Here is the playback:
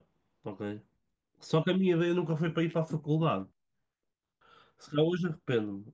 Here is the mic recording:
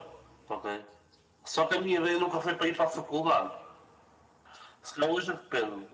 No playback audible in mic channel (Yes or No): No